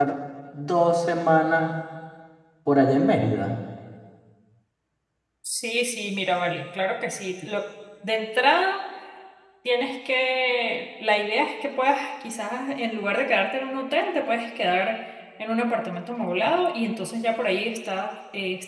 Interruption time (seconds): none

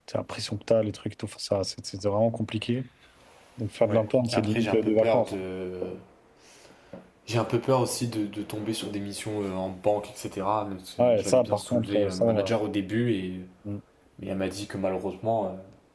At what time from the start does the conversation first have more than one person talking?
3.8 s

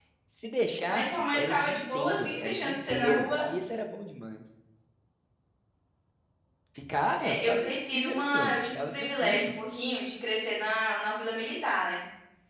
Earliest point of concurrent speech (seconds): 0.9 s

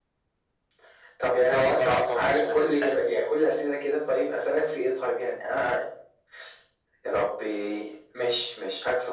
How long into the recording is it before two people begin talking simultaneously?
1.4 s

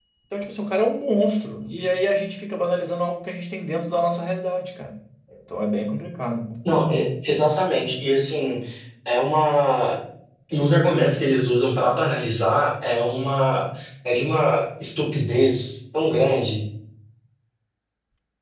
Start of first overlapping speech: none

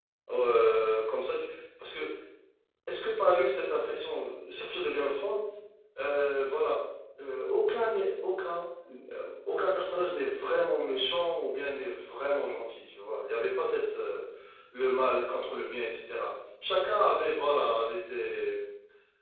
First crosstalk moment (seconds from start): none

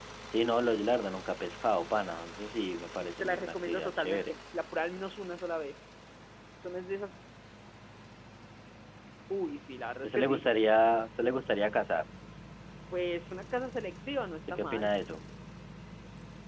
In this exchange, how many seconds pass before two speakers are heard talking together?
3.0 s

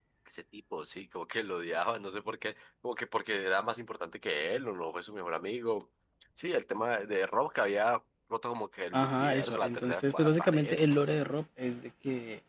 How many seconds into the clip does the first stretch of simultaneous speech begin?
8.9 s

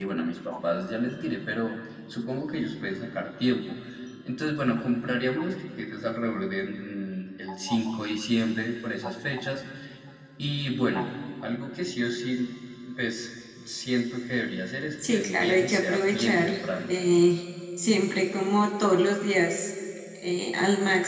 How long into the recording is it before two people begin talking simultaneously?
15.0 s

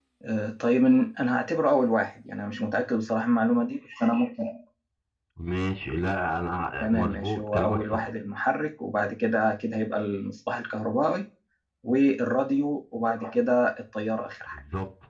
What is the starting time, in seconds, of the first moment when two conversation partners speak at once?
6.8 s

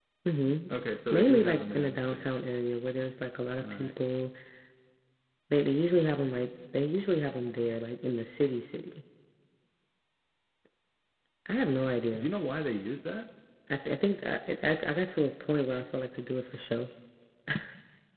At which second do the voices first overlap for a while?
1.1 s

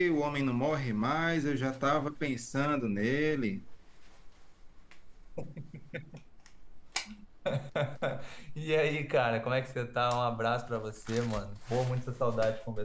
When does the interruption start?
none

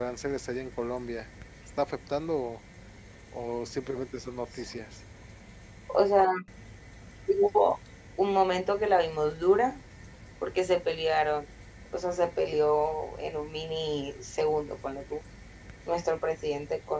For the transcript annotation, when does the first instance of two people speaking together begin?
none

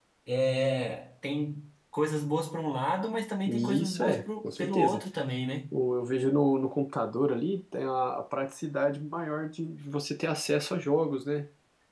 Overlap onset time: 3.5 s

